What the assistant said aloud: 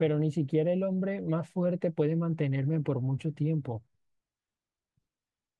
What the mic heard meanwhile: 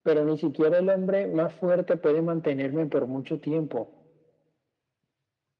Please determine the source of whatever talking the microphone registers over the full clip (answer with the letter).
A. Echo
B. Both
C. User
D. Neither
A